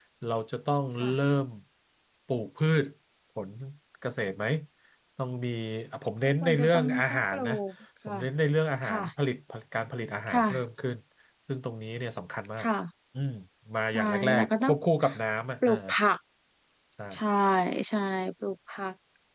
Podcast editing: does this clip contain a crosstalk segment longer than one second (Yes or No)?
Yes